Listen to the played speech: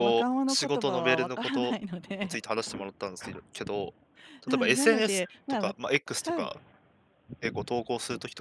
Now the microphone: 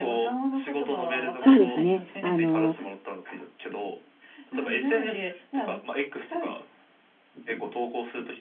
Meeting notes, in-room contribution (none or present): present